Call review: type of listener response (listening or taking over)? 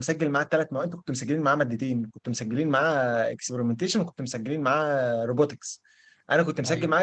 listening